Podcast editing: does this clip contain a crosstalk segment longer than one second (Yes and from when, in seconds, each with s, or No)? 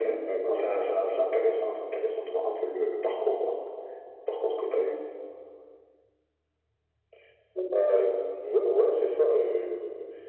No